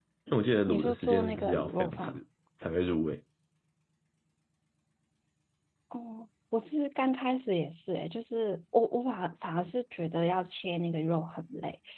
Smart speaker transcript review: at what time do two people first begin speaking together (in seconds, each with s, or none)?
0.7 s